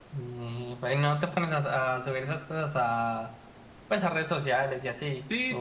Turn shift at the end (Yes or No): Yes